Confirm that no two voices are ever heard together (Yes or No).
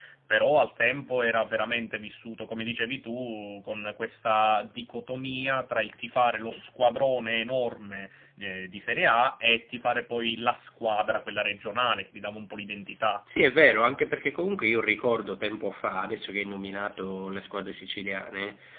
Yes